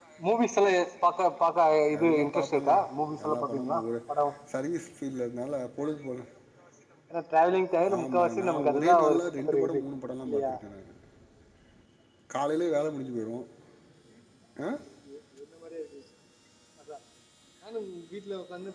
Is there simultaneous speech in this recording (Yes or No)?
Yes